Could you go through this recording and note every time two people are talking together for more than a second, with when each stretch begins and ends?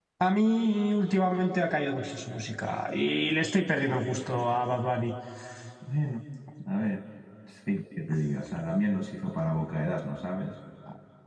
none

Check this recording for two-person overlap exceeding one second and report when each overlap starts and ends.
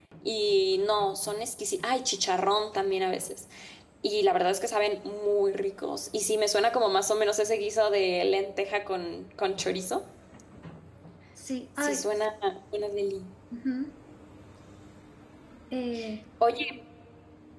none

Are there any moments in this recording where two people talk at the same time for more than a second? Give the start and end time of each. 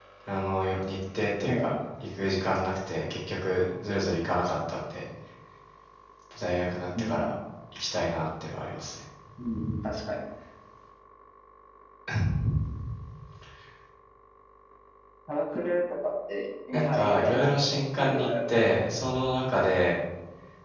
16.7-18.5

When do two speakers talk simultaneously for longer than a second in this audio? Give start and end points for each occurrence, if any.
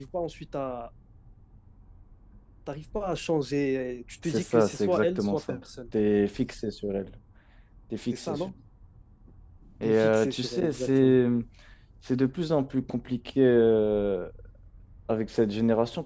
4.2-5.6, 9.8-11.2

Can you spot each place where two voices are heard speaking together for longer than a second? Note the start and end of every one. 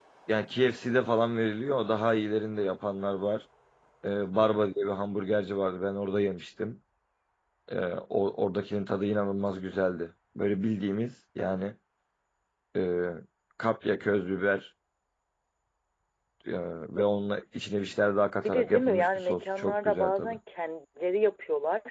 18.4-20.4

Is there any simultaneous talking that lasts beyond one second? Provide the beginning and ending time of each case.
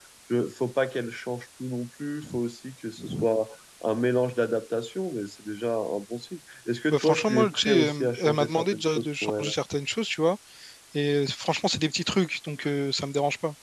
6.9-9.5

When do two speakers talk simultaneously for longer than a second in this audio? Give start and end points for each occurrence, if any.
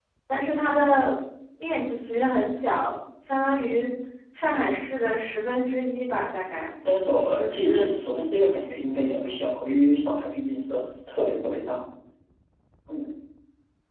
none

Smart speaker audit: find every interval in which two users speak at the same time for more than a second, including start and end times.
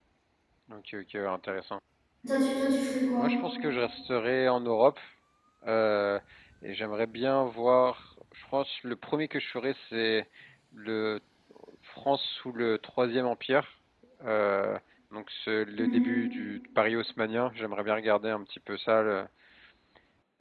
none

